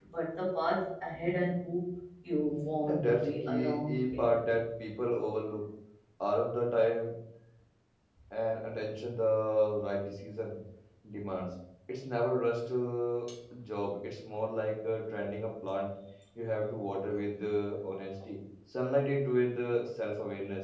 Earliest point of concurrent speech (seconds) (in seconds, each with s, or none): 2.9 s